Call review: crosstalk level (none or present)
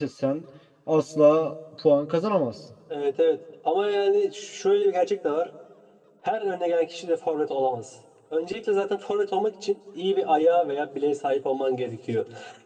none